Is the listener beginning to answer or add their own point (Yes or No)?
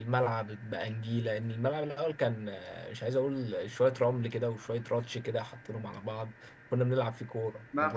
Yes